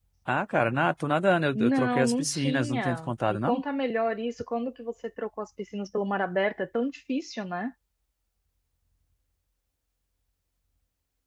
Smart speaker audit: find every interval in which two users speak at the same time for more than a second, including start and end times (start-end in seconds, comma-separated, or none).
1.6-3.6